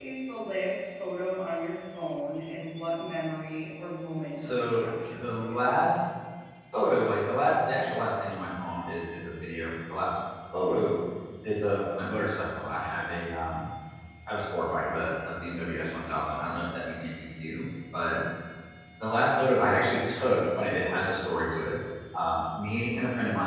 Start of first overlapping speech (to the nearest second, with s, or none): 4 s